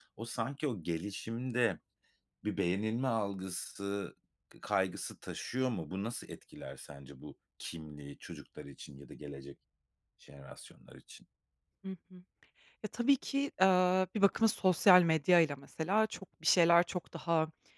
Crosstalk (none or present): none